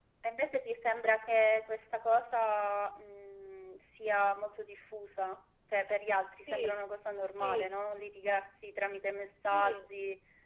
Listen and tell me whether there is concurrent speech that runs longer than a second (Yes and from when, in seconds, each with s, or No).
No